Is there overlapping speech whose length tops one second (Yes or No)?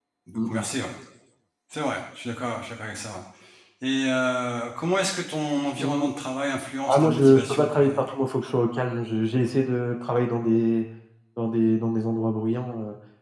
Yes